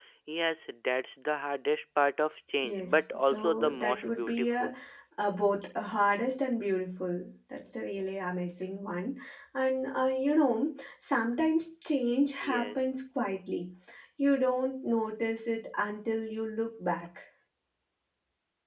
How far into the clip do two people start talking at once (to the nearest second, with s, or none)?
3 s